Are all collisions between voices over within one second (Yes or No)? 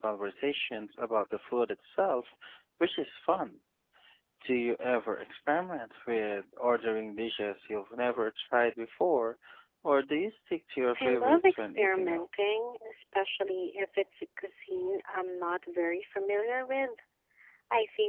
No